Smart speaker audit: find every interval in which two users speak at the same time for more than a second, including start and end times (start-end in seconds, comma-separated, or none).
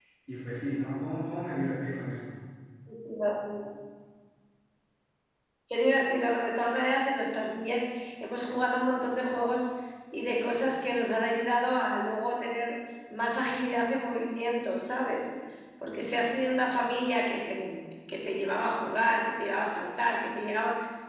none